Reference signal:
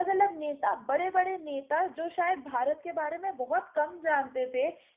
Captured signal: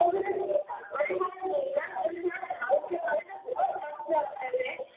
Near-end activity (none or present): none